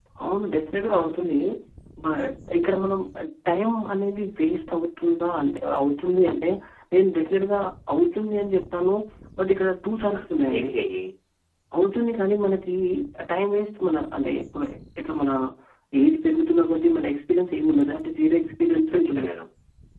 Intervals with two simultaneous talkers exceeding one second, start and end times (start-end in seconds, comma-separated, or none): none